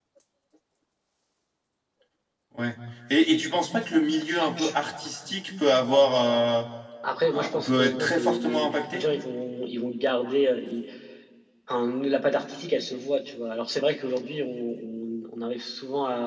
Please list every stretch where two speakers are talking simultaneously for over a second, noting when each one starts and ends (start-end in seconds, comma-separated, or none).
7.3-9.0